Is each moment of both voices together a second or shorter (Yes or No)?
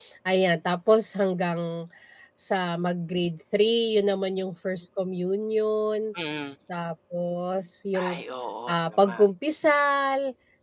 Yes